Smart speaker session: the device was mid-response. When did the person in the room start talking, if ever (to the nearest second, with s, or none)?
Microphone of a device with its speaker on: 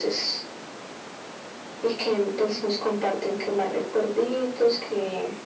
none